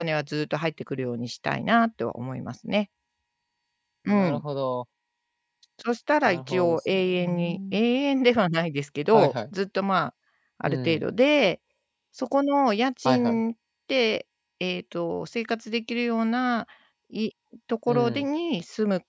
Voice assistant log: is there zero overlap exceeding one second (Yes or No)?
No